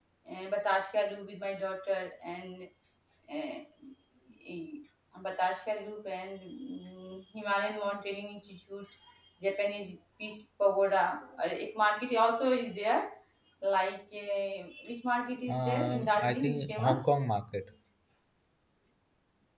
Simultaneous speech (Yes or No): Yes